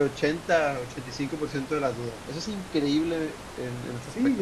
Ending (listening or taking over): taking over